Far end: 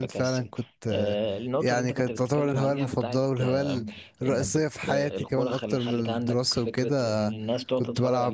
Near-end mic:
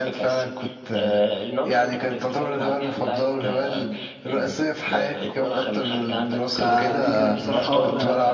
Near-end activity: present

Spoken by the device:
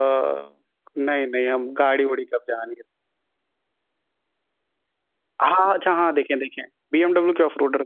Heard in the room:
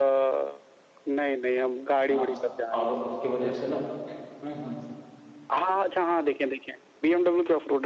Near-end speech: present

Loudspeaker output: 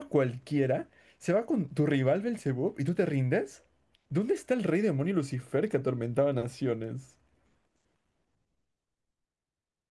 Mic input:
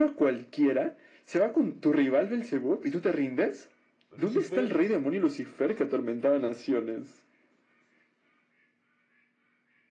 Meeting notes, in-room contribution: present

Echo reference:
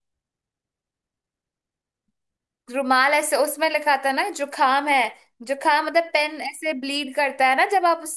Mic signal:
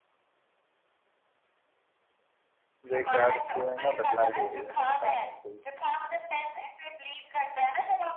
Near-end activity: present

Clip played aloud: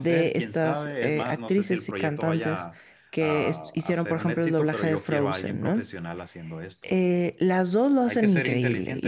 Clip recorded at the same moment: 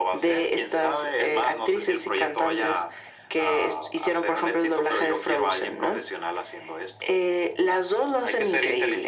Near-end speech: none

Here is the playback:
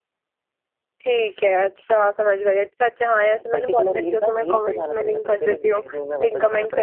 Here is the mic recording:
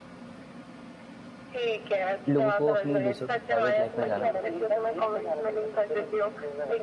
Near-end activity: present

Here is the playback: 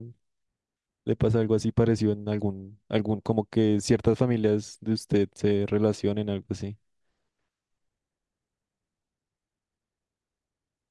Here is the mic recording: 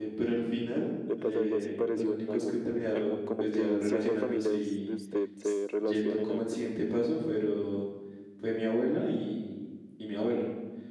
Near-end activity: present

